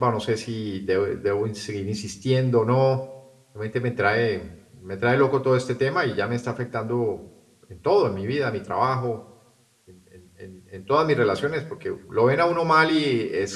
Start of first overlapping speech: none

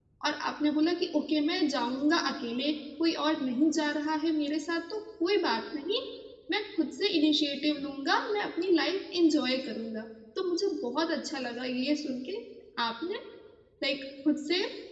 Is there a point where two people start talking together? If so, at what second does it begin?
none

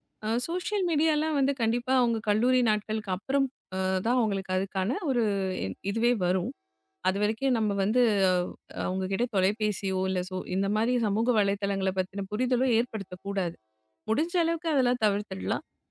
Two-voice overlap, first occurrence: none

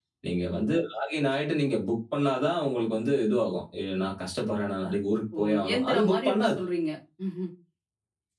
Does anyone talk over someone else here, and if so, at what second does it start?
5.3 s

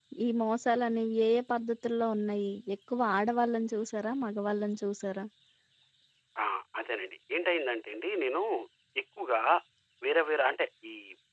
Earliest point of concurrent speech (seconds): none

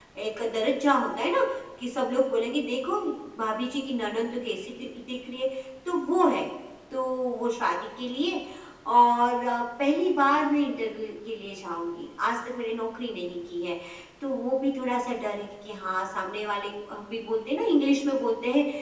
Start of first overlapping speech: none

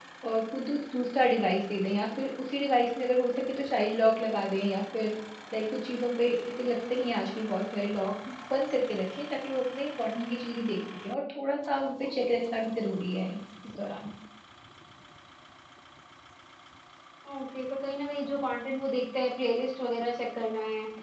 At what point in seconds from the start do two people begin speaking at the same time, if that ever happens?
none

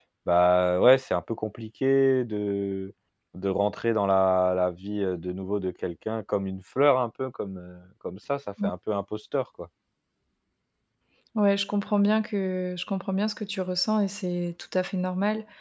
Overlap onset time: none

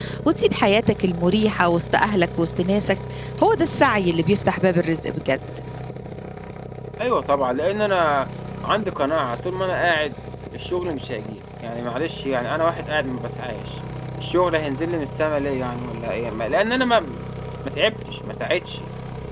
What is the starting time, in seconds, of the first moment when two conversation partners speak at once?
none

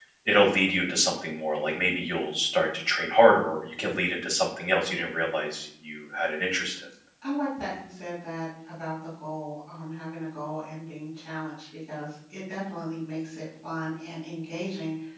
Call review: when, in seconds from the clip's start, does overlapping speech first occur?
none

